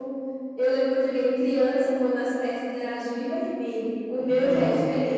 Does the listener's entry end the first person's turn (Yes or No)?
No